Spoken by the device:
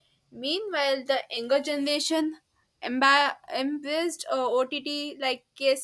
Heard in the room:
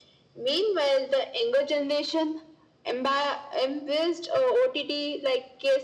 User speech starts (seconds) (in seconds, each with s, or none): none